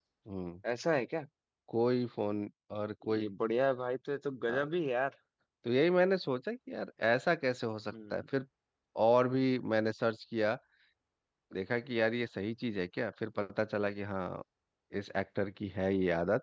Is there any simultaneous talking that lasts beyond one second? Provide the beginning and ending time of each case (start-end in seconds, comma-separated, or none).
none